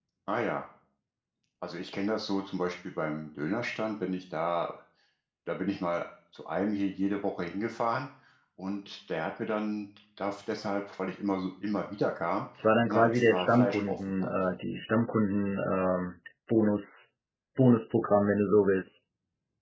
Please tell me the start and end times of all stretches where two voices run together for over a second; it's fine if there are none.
12.8-14.3

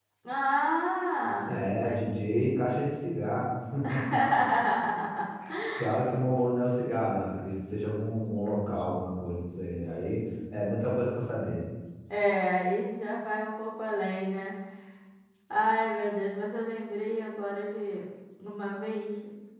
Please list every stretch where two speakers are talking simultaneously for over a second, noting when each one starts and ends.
1.4-2.8

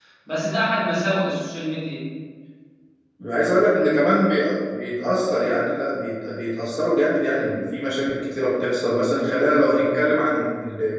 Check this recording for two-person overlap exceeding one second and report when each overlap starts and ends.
none

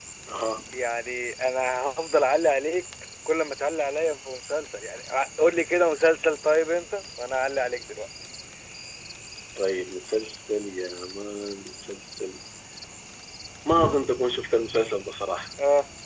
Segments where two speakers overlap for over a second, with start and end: none

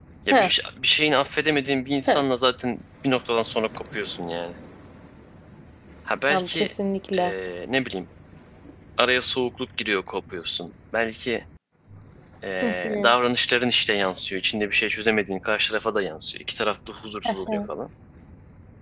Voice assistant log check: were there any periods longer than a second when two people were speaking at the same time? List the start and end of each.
none

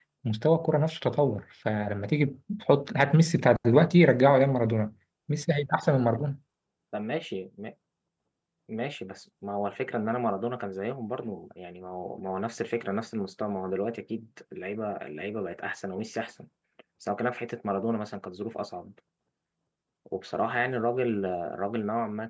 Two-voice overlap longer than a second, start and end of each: none

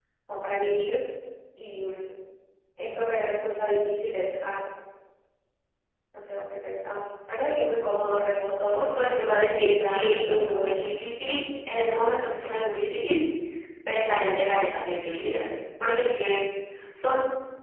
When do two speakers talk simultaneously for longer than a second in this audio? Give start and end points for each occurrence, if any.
8.7-10.9

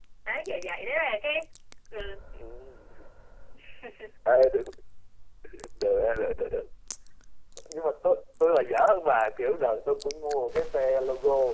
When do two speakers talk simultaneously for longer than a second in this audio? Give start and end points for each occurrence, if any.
none

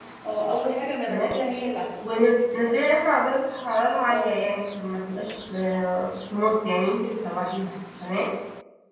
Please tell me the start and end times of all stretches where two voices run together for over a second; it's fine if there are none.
none

